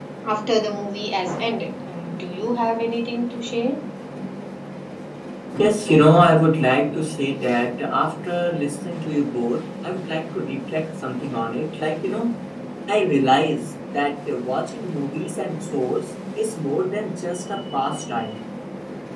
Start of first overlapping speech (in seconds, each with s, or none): none